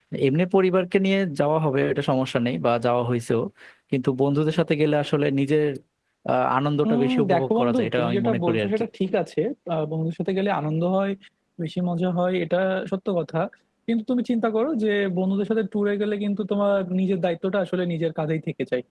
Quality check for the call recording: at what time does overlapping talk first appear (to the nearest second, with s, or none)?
7 s